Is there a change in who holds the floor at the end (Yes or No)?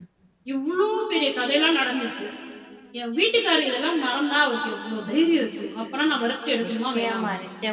Yes